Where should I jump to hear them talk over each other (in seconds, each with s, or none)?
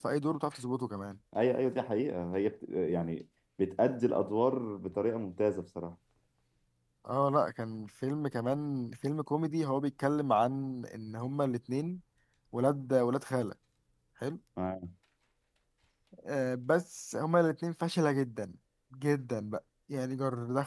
none